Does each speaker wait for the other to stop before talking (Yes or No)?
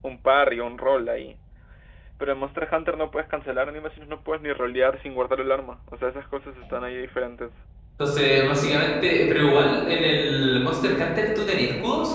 Yes